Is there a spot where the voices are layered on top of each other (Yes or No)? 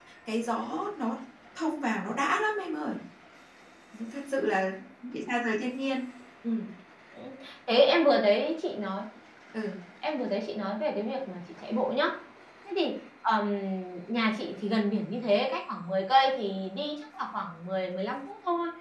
No